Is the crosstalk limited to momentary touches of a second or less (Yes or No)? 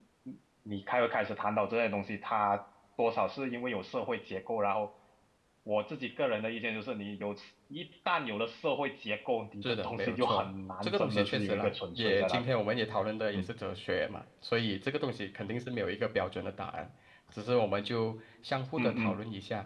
No